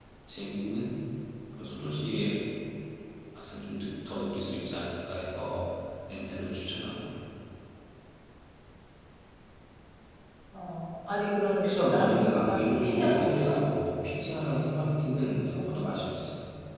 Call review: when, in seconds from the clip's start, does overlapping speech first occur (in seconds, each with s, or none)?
11.6 s